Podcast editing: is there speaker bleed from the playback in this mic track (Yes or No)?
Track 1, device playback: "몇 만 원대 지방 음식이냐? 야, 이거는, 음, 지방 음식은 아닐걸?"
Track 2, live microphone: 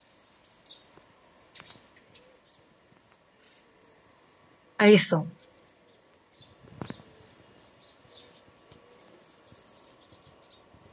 No